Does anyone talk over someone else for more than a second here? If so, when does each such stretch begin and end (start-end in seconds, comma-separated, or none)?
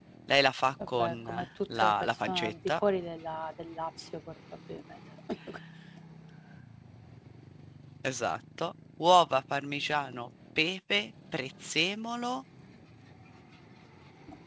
0.9-2.8